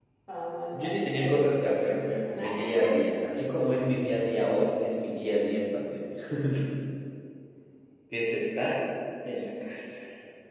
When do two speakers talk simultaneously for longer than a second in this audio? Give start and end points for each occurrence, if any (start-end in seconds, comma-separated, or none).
0.7-3.0